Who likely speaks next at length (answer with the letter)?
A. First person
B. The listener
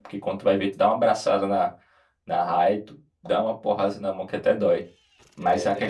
A